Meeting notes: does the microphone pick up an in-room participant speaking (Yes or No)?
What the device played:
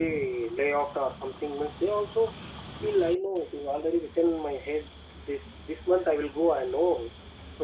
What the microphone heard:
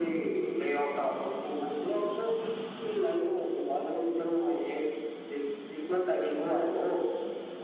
No